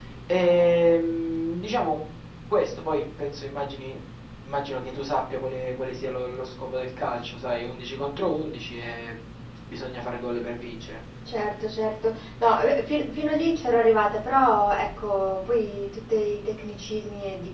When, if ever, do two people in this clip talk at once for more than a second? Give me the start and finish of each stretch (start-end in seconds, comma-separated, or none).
none